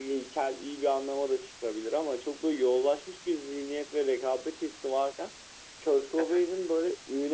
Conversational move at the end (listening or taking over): listening